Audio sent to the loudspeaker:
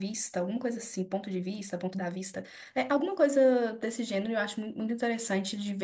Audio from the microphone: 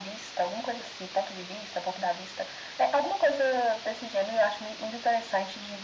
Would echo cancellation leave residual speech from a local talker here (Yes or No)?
No